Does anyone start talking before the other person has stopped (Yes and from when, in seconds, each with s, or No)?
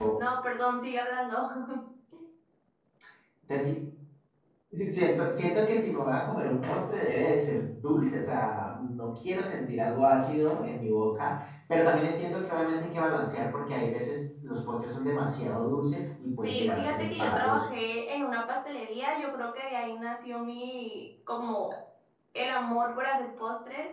Yes, from 16.4 s